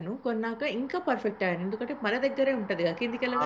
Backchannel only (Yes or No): No